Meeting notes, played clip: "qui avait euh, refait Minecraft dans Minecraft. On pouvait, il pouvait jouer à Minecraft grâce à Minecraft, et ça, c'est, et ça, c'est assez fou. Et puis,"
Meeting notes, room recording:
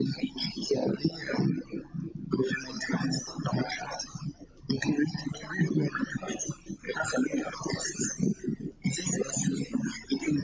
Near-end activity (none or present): none